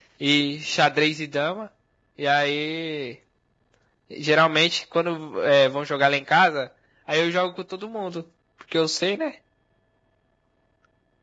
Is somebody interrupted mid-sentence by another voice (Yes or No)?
No